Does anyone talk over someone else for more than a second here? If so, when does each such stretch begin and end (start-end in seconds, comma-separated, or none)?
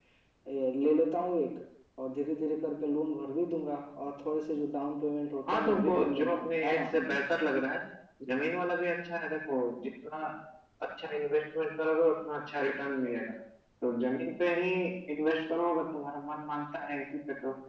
5.5-6.8